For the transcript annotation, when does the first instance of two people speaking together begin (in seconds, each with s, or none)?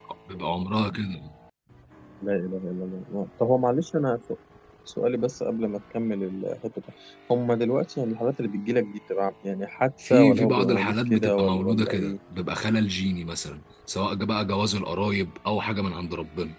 10.0 s